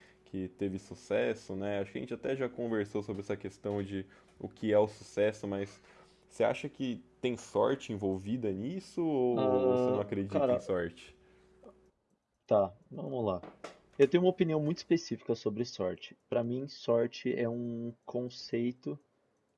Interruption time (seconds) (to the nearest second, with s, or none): 9 s